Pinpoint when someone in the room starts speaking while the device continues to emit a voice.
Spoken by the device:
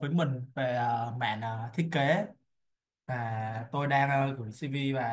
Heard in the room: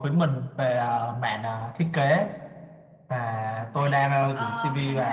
4 s

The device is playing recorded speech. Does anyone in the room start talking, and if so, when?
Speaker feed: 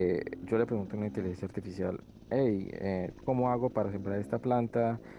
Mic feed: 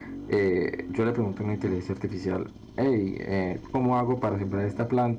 none

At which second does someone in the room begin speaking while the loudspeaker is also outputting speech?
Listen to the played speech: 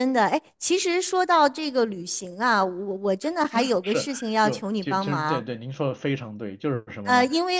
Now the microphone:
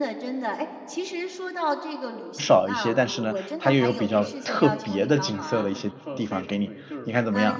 2 s

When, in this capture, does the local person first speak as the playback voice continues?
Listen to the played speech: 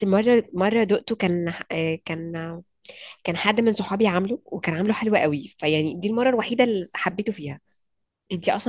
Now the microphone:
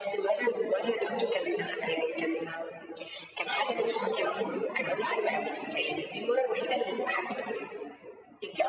none

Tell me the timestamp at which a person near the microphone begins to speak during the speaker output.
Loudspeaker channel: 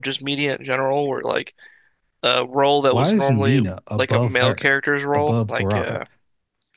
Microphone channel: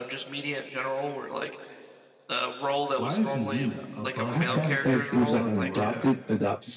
4 s

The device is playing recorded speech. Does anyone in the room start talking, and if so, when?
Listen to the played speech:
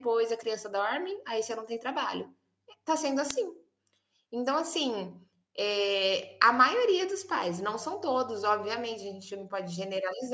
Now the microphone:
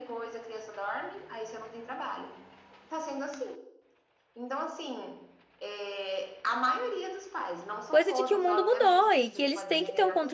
8 s

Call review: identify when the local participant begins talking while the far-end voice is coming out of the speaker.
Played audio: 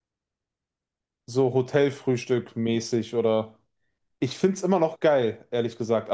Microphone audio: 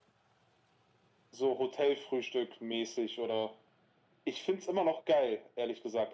none

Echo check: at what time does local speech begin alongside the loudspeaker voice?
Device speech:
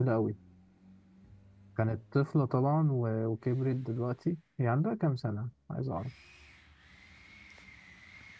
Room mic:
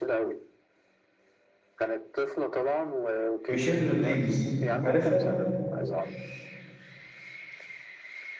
3 s

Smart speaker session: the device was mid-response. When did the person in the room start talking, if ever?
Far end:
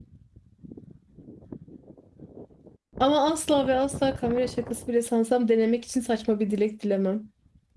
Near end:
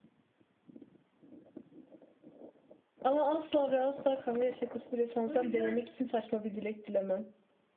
5 s

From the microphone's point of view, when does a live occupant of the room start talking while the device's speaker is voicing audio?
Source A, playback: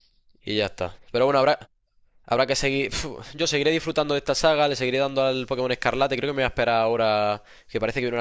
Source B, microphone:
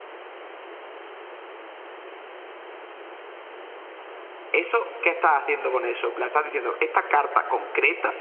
5 s

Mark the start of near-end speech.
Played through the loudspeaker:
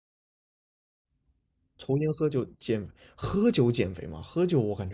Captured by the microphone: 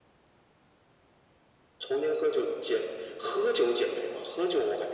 none

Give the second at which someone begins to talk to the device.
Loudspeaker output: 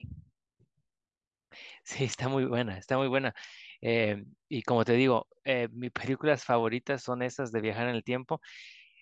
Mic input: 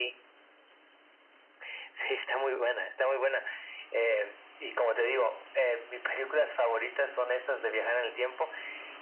none

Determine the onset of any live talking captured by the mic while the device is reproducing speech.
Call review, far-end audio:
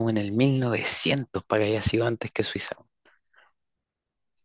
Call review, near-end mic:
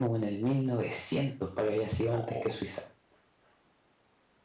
2 s

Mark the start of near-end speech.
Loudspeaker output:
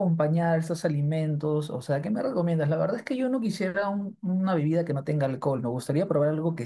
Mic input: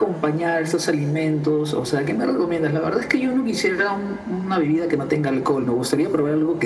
none

